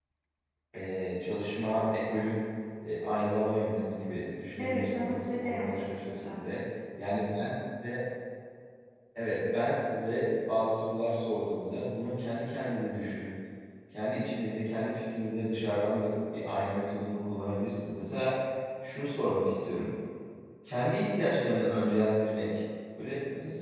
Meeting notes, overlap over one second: present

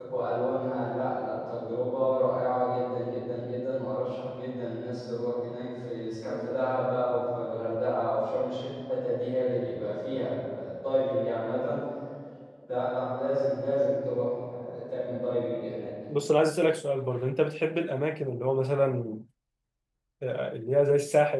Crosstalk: none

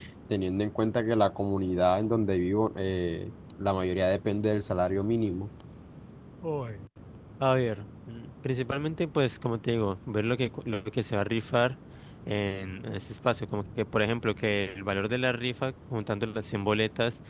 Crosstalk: none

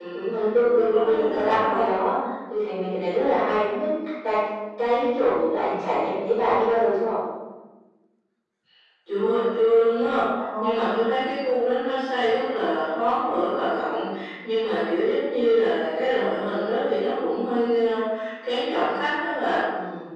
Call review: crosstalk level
present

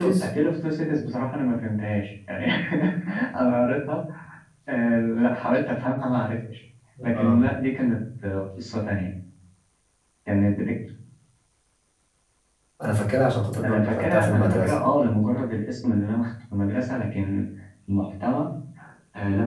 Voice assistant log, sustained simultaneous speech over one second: present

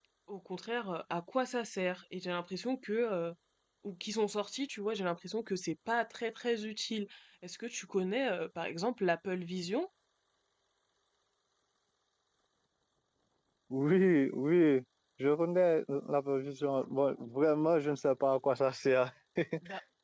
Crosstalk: none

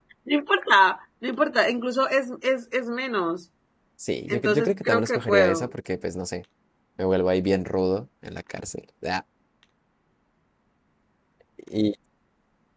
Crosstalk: present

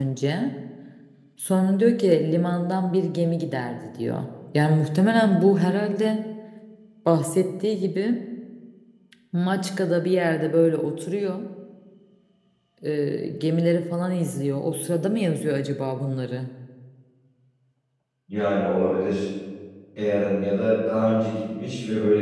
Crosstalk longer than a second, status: none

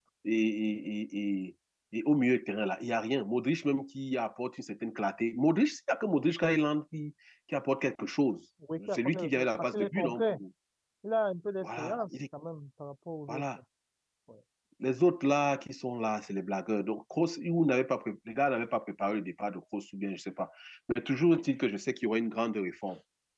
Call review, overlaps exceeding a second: present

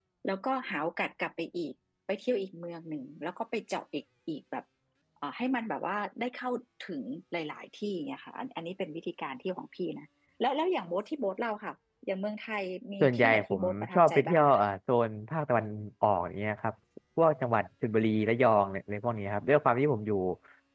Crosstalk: present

